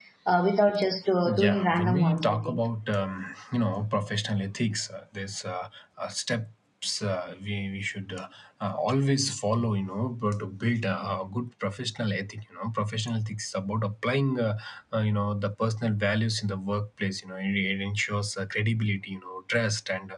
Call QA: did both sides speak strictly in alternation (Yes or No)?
No